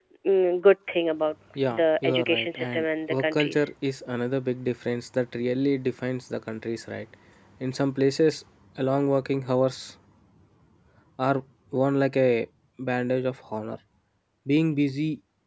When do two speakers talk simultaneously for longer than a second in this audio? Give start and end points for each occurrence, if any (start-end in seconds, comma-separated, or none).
1.7-3.7